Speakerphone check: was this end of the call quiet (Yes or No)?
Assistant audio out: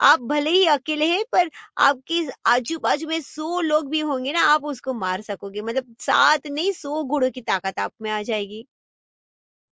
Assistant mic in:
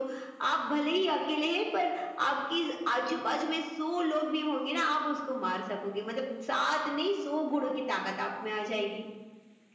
Yes